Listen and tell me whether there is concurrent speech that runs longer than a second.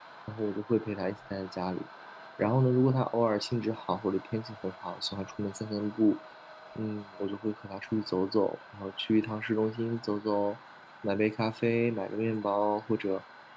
No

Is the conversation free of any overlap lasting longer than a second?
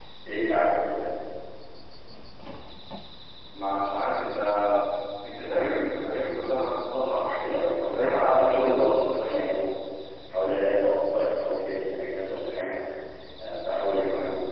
No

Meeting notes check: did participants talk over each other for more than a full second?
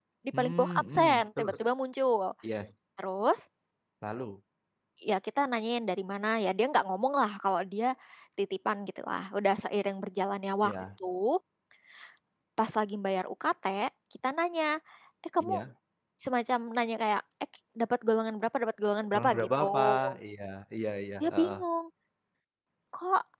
Yes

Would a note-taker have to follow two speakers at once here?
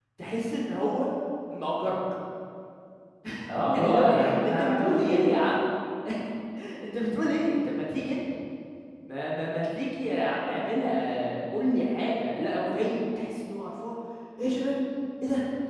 Yes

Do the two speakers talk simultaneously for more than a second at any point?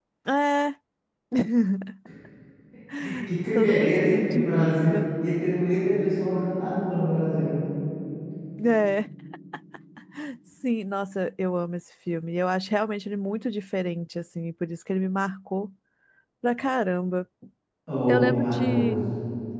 Yes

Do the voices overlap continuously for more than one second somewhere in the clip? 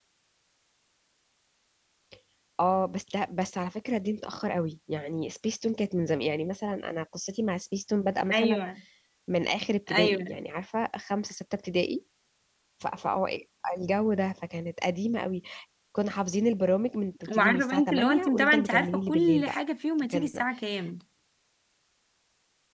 Yes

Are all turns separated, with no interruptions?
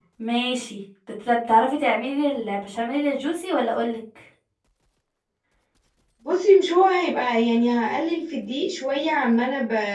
Yes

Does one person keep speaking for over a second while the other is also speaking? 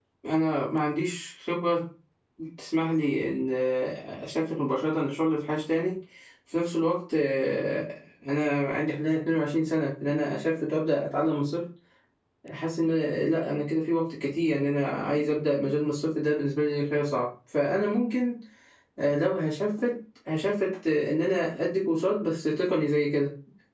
No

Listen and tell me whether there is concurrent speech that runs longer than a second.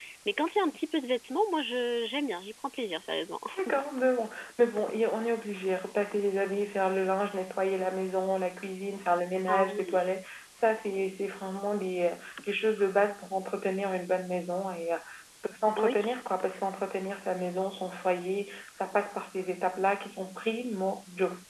No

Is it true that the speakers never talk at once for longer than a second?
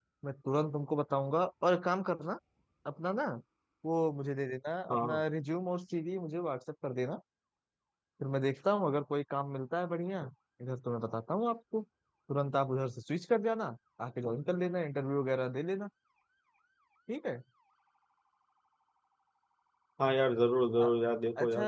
Yes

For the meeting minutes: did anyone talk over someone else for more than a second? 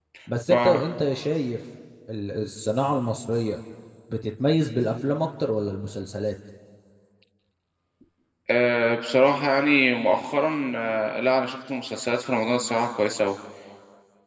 No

